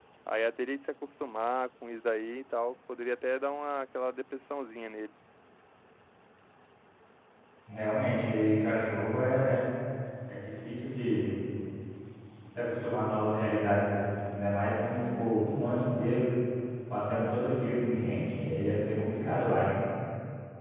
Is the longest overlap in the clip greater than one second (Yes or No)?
No